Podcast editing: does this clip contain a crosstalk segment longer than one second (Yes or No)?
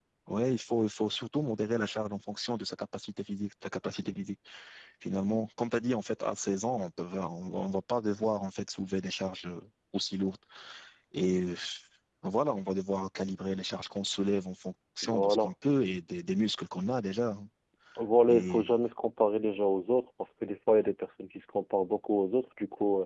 No